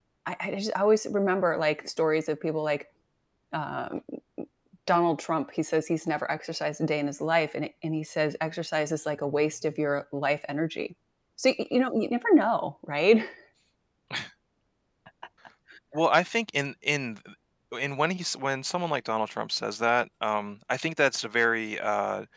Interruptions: none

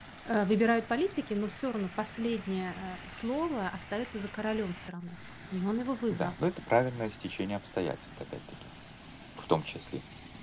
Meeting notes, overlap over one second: none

